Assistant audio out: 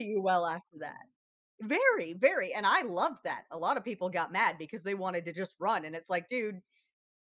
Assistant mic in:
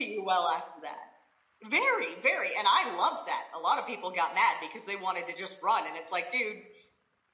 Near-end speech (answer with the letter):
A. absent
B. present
A